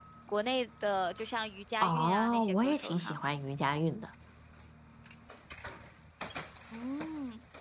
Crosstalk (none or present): present